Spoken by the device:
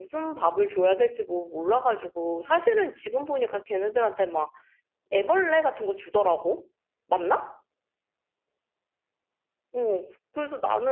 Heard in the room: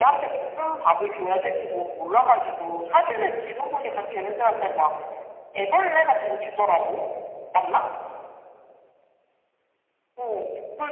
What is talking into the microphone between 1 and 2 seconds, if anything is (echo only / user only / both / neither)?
echo only